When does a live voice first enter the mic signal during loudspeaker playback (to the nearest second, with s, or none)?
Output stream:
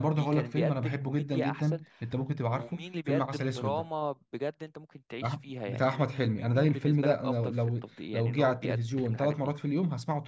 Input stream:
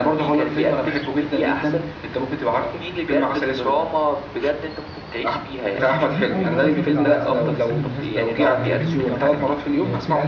6 s